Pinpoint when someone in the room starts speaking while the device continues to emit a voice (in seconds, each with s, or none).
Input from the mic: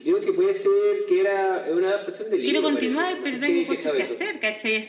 2.4 s